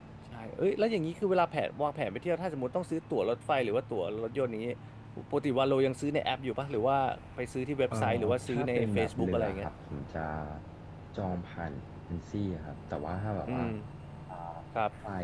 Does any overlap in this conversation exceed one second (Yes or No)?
Yes